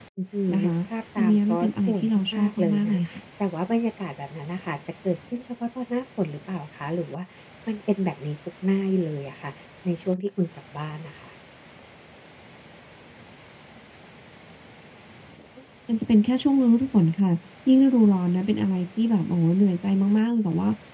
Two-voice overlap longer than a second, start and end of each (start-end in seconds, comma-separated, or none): 1.2-3.0